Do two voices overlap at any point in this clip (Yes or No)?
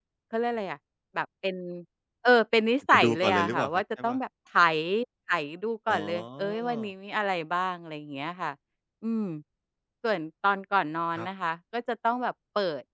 Yes